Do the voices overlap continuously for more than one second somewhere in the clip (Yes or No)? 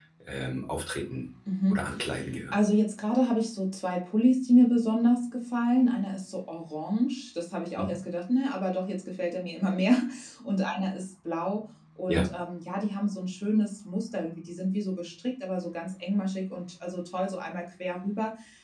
No